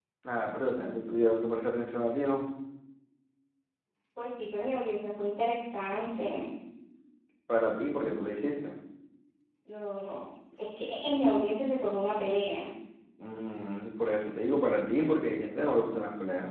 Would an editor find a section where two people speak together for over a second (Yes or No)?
No